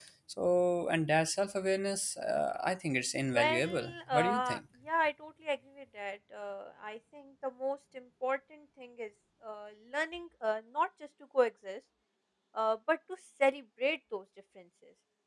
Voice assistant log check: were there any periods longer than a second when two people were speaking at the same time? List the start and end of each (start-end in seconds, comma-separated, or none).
3.3-4.6